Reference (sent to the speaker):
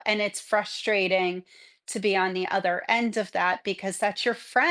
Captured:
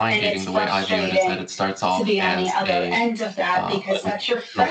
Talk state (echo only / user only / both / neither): both